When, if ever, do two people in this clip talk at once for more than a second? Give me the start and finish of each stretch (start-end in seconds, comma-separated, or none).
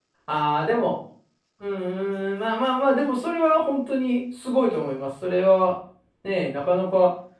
none